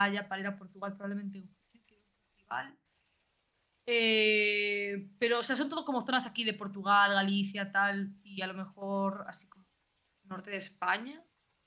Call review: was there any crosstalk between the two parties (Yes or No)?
No